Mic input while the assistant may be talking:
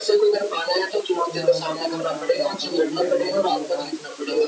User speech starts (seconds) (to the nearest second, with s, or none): 1 s